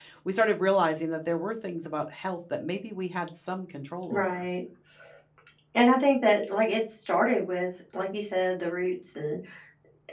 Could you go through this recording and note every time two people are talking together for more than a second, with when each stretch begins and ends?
none

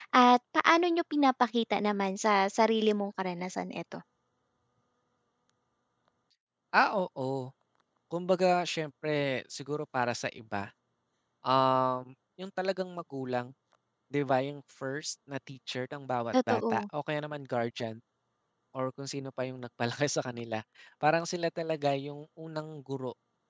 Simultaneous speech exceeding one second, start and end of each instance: none

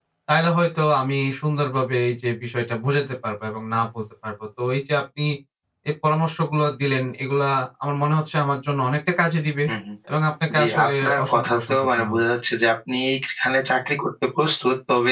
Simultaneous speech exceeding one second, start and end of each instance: 10.6-12.2

